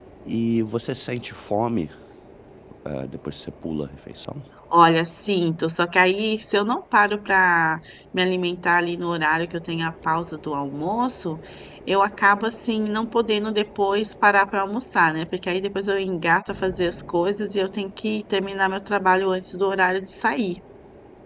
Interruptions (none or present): none